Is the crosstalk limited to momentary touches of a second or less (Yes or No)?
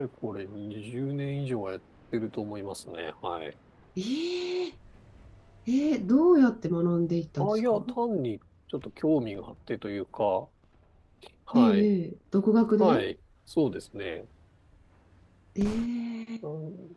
Yes